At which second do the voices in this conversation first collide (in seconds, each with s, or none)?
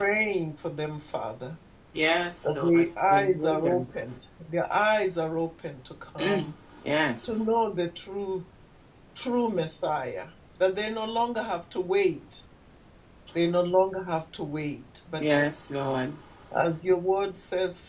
2.4 s